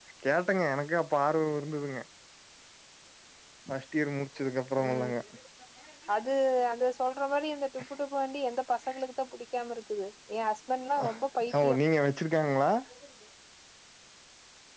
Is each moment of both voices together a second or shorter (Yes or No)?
Yes